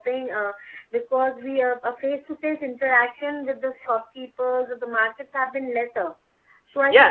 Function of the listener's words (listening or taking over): taking over